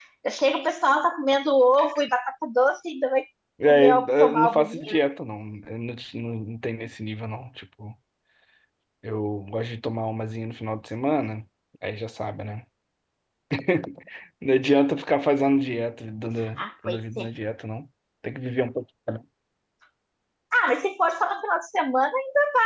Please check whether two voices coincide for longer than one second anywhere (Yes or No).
Yes